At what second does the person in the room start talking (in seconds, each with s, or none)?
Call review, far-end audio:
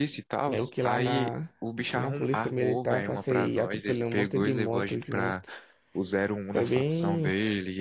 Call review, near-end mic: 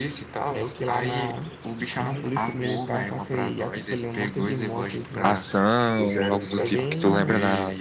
5.2 s